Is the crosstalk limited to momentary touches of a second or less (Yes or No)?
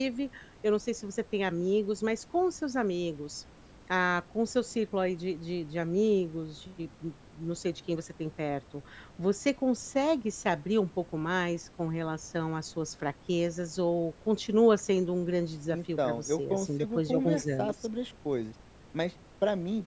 No